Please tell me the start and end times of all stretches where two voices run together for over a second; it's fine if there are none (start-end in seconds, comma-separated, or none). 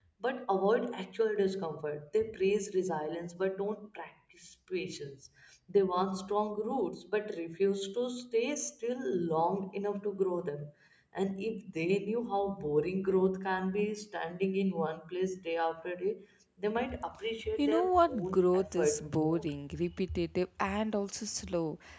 17.5-19.5